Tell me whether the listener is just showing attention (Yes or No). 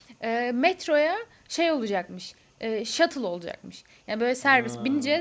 Yes